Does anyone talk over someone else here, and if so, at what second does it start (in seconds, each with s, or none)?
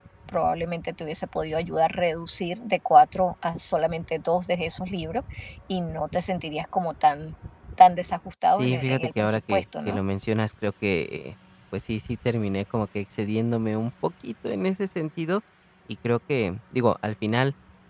8.6 s